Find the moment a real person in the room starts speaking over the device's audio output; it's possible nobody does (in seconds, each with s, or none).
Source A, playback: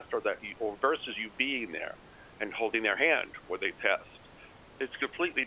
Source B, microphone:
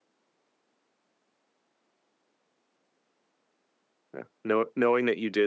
4.1 s